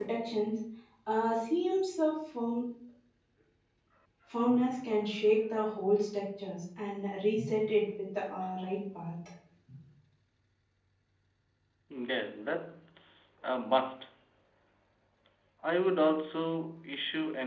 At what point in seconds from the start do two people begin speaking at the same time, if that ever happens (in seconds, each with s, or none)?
none